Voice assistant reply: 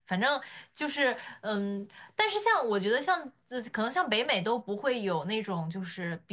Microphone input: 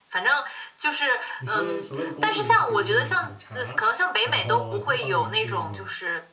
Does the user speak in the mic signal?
Yes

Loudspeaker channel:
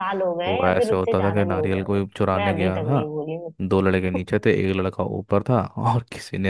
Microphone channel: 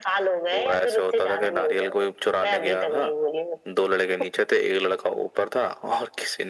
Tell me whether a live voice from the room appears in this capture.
No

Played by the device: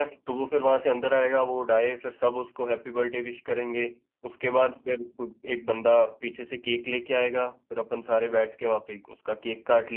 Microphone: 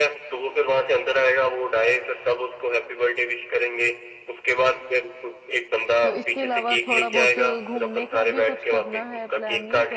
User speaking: Yes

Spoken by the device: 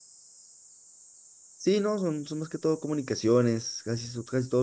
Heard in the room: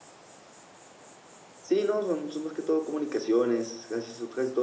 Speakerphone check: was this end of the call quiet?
Yes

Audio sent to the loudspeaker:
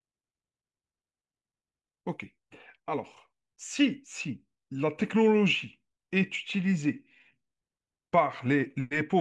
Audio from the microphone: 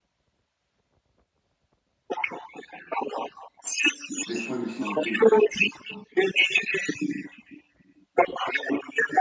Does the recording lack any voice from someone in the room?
No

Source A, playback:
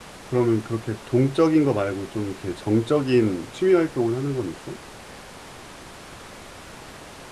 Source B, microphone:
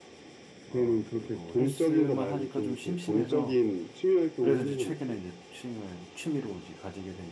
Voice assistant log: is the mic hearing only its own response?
No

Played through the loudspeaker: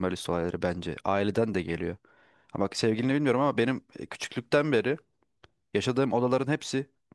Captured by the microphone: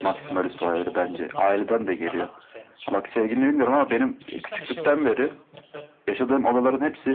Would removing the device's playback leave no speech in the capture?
No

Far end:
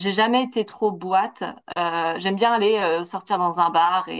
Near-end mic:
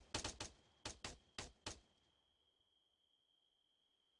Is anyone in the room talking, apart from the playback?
No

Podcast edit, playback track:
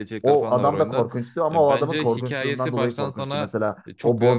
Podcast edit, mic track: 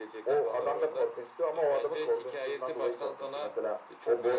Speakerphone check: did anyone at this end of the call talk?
No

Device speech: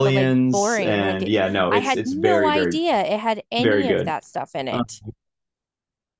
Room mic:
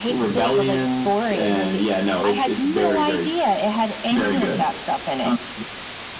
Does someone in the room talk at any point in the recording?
No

